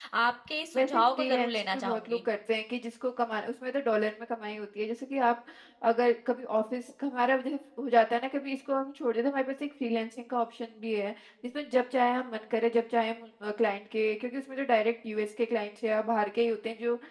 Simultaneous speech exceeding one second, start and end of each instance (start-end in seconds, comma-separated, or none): 0.7-2.2